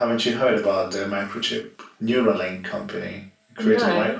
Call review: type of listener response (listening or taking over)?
listening